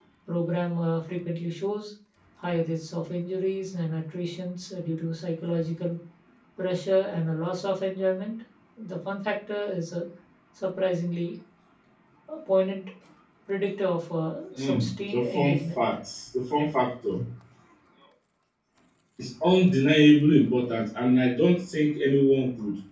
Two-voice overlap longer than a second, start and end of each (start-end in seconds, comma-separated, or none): 14.6-15.8